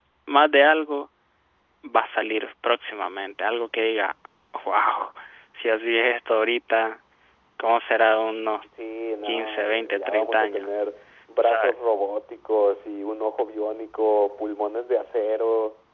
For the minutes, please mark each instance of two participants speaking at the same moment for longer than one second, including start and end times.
9.2-10.7

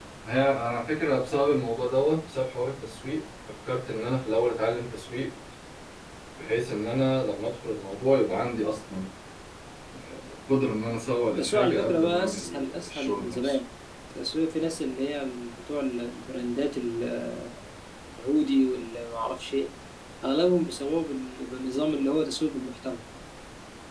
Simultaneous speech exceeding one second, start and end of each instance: 11.4-13.6

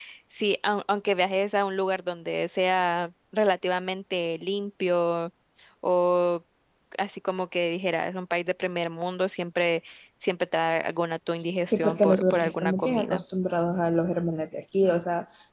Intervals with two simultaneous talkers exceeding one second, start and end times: 11.7-13.2

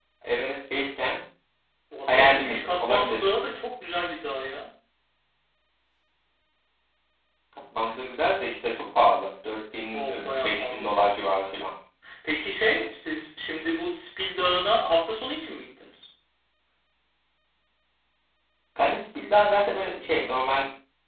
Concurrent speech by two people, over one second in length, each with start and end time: 2.1-3.3, 9.9-11.4

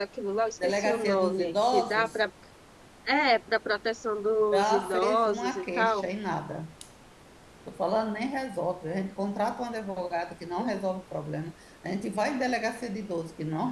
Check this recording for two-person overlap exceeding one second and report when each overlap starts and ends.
0.6-2.2, 4.5-6.1

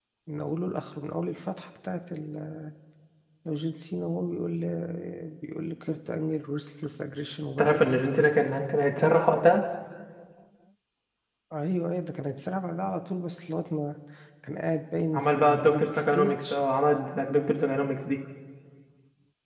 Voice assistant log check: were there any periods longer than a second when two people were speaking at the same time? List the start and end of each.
15.1-16.4

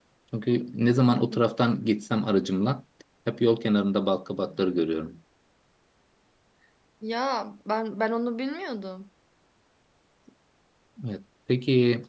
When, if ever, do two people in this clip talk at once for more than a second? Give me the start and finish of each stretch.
none

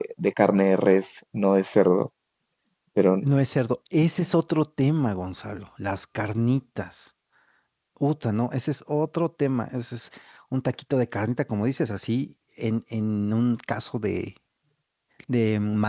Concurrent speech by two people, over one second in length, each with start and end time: none

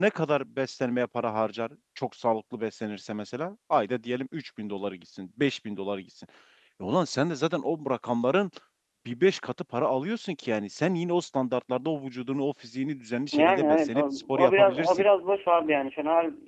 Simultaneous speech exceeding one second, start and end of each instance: 13.4-15.0

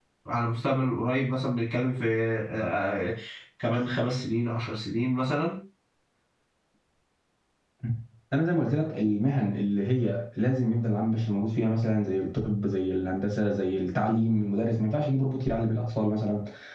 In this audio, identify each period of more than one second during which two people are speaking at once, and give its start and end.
none

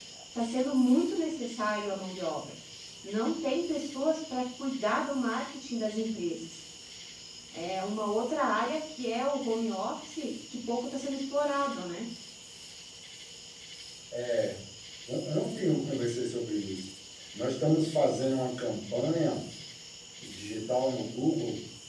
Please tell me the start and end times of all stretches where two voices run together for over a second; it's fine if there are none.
none

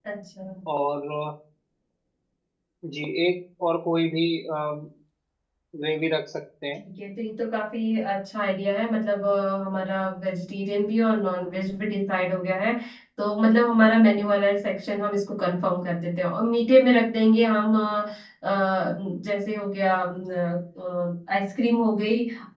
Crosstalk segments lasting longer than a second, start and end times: none

